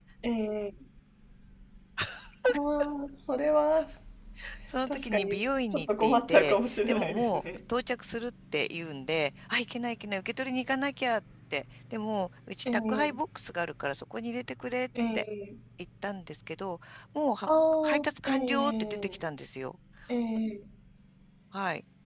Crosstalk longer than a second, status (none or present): present